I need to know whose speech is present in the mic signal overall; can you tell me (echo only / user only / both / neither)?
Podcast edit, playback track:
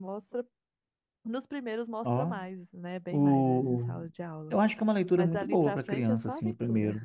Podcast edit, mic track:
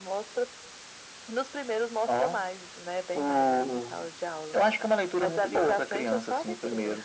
echo only